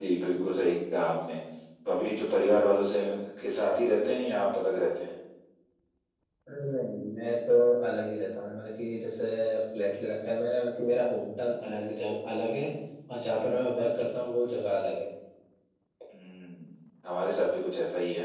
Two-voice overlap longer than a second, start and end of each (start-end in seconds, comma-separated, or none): none